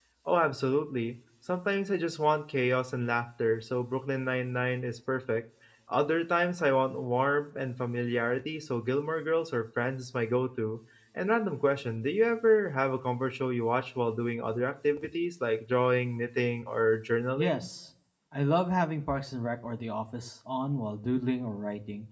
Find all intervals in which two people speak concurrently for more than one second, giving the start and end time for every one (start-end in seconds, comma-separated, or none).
none